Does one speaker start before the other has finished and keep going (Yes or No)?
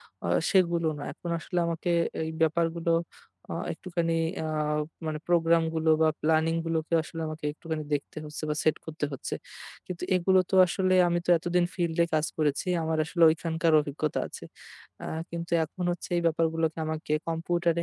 No